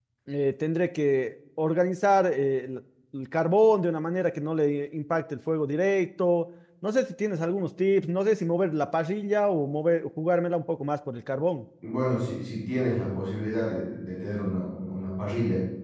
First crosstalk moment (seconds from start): none

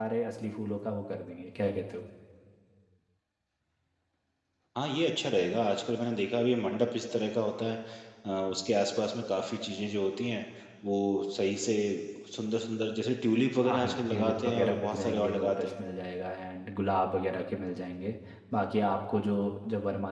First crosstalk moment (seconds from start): 13.6 s

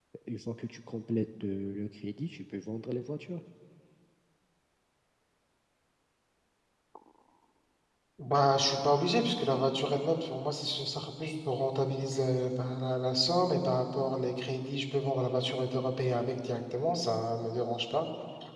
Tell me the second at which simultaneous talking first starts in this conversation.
none

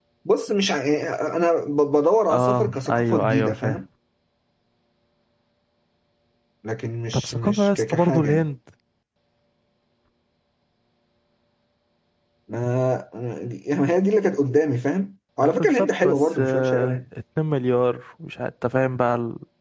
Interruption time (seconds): 2.3 s

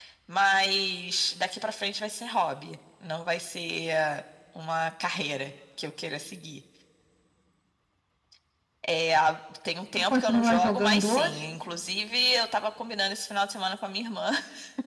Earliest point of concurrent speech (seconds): 10.1 s

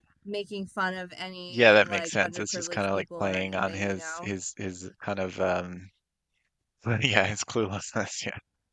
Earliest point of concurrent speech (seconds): 1.5 s

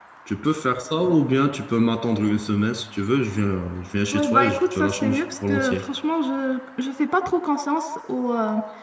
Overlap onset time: 4.1 s

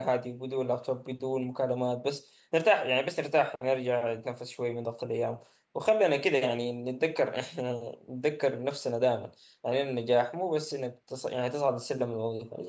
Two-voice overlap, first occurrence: none

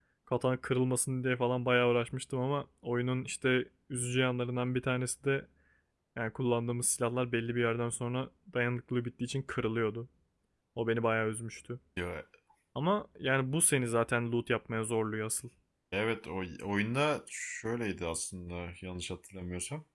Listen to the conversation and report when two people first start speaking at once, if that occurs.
none

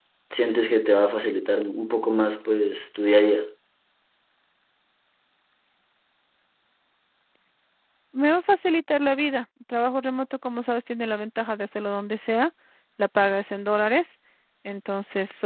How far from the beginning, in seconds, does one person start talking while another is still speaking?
none

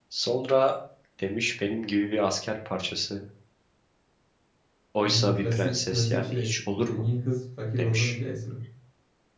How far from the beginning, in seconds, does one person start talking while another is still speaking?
5.0 s

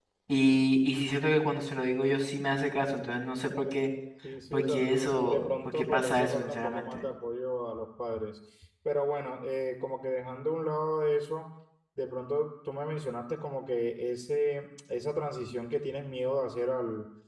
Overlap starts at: 4.5 s

